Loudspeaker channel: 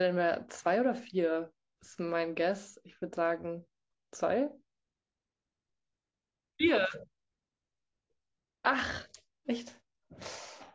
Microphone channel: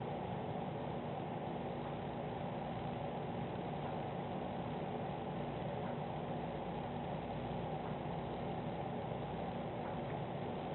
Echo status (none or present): none